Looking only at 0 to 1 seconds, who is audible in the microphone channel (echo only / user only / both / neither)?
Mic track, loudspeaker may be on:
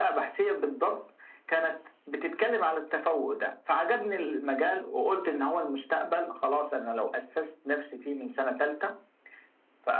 echo only